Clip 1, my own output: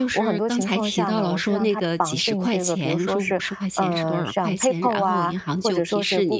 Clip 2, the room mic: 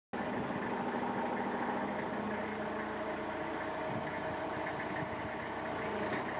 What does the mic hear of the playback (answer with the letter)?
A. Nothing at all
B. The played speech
A